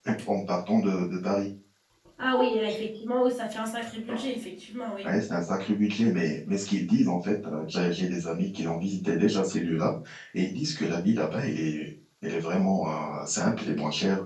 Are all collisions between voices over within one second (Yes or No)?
Yes